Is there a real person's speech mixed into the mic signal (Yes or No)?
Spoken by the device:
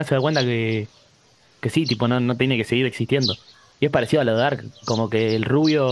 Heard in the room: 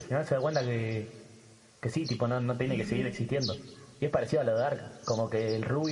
Yes